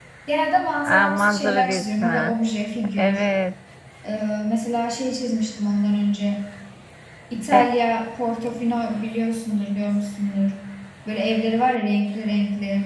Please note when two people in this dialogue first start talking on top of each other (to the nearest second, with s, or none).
1 s